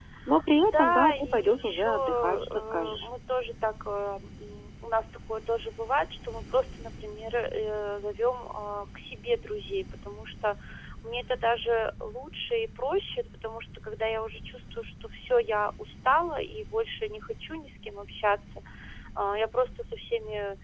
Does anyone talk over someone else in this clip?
Yes, from 0.5 s

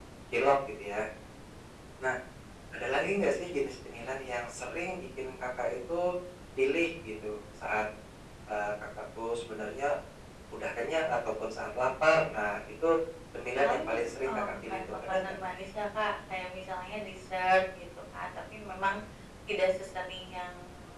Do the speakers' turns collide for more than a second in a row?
Yes, from 13.6 s

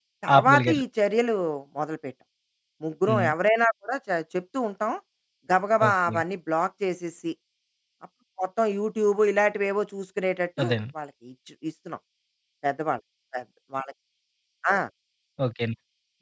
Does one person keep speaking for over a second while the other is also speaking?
No

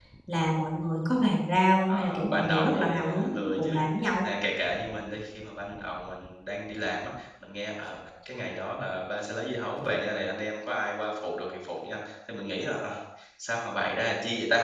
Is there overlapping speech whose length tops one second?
Yes, from 1.9 s

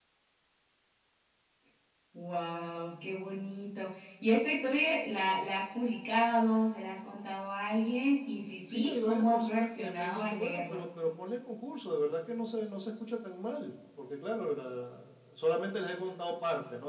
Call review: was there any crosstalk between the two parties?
Yes, from 8.7 s

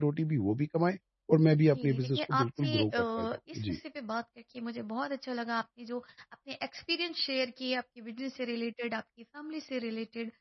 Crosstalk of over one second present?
Yes, from 1.7 s

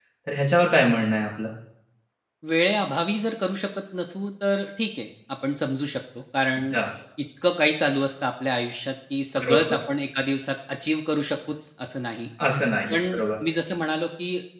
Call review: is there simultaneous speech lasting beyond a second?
No

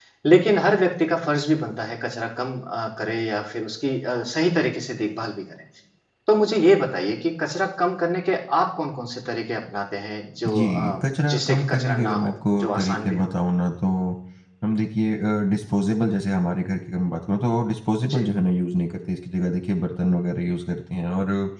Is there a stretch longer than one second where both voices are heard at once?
Yes, from 10.4 s

